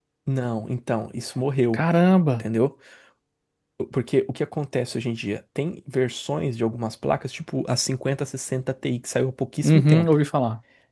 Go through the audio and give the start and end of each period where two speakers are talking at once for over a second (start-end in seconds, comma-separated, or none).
none